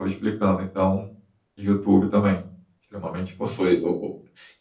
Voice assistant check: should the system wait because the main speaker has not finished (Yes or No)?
No